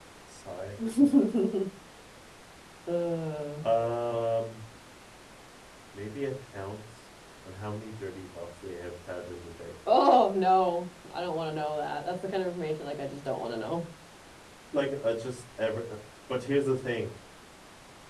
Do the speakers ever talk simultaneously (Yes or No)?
No